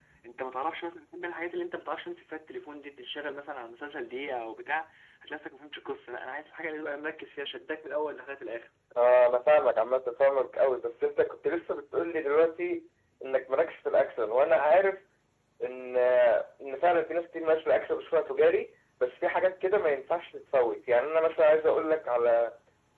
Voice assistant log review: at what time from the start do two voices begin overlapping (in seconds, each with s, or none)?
none